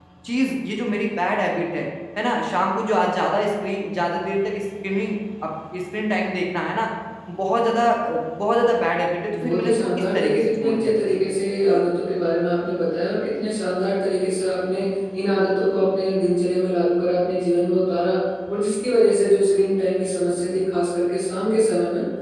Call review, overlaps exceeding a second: present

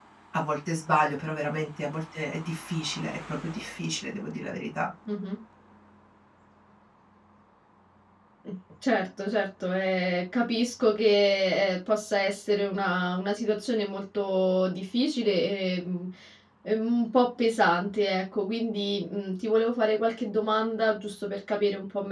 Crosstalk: none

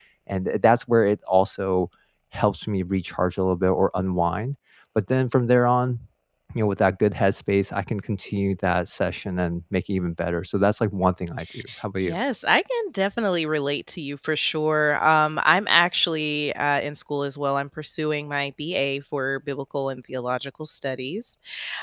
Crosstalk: none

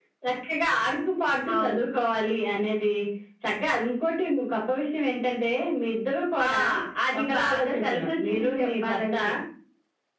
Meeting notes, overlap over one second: present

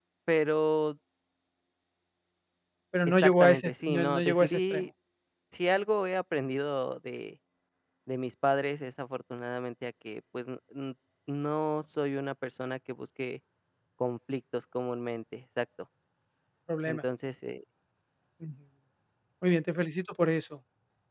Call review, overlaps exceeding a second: present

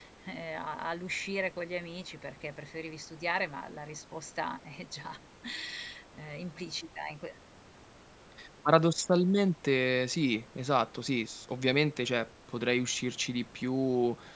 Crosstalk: none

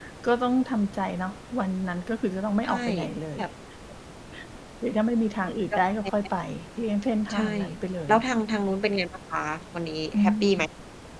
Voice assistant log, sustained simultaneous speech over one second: none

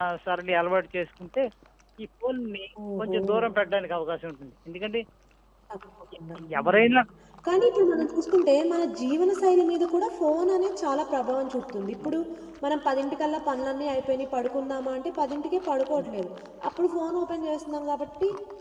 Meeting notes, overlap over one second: none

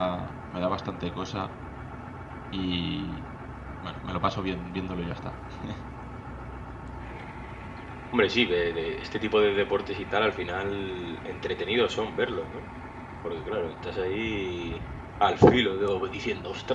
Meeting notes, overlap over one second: none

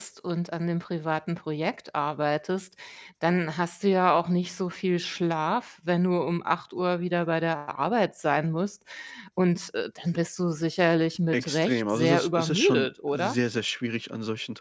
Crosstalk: present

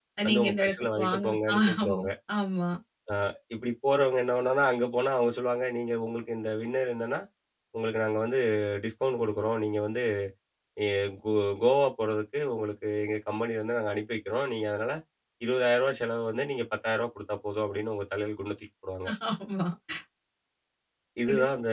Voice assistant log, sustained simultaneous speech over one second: present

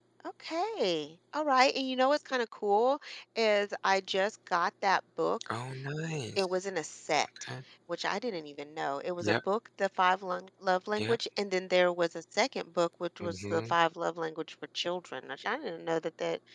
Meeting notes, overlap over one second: none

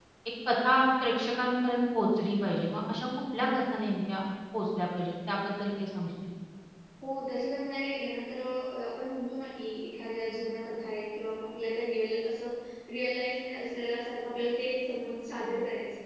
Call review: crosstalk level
none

